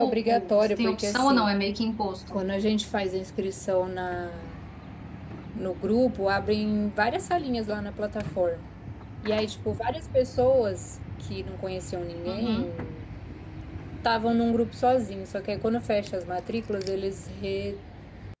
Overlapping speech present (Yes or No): Yes